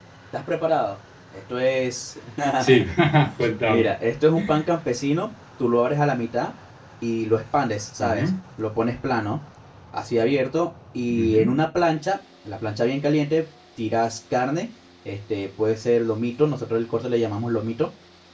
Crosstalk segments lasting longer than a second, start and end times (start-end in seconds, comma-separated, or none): none